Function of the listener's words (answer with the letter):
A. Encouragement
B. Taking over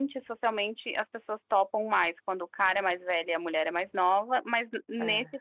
A